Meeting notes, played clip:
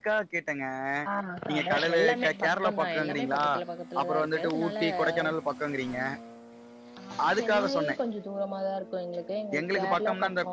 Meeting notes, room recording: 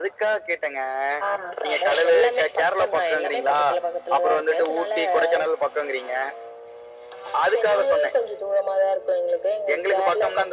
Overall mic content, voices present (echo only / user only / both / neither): echo only